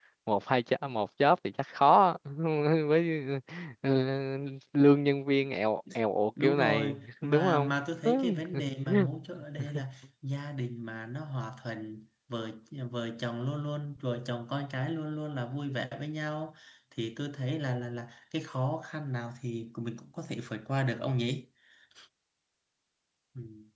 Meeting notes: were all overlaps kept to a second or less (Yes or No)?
No